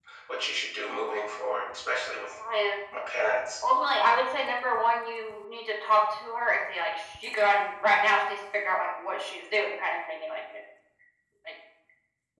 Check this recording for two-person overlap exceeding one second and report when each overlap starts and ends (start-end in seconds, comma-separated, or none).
none